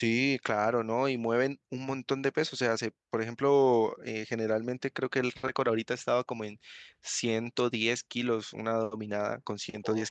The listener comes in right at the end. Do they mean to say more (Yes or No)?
No